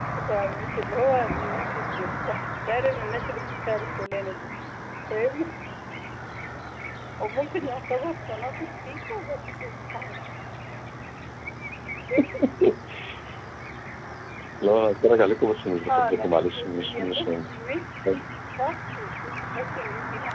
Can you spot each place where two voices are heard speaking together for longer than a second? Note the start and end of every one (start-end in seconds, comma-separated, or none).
15.9-17.3